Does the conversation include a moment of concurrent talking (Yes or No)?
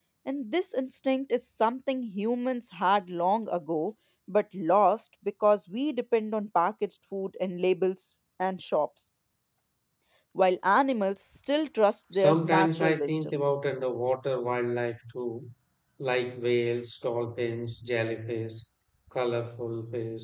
Yes